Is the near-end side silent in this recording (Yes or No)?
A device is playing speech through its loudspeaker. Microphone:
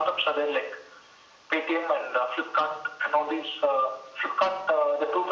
Yes